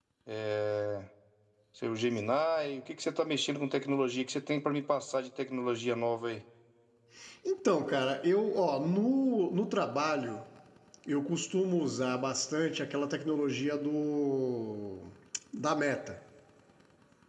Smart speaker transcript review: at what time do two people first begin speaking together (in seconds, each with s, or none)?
none